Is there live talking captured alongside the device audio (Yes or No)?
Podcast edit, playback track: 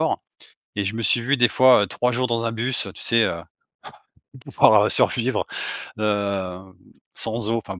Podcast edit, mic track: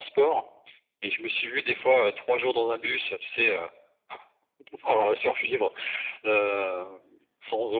No